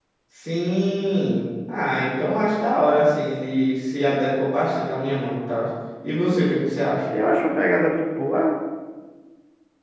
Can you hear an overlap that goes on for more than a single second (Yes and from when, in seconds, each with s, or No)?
No